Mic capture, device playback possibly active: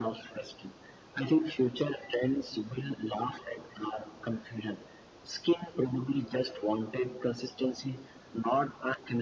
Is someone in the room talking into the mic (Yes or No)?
No